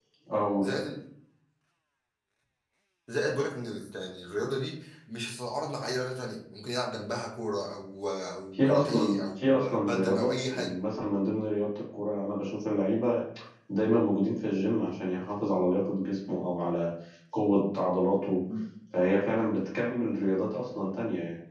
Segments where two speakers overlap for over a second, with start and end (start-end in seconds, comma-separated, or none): 8.5-10.7